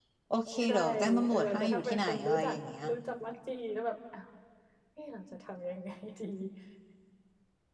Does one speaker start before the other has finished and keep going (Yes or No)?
Yes